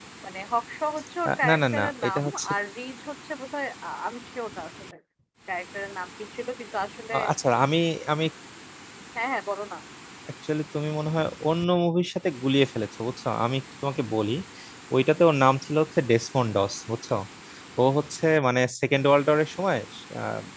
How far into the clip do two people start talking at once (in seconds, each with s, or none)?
1.3 s